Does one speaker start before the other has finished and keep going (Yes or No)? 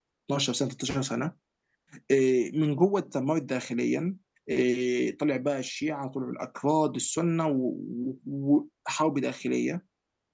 No